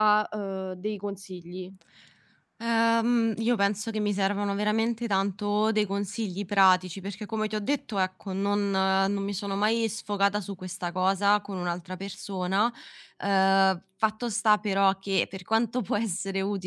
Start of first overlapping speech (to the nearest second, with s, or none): none